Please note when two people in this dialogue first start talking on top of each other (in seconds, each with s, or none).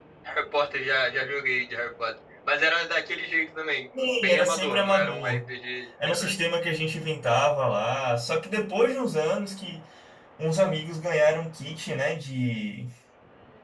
4.0 s